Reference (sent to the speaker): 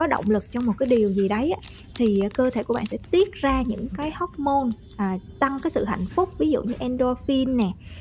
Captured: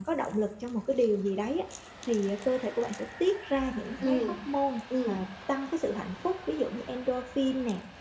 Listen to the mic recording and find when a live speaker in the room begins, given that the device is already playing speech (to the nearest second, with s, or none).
4 s